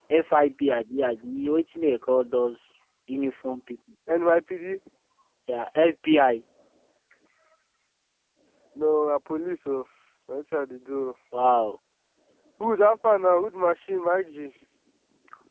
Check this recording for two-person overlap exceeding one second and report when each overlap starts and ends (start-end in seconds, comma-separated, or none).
none